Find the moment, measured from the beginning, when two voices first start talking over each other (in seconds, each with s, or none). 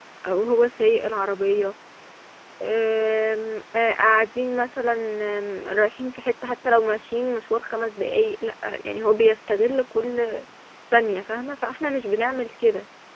none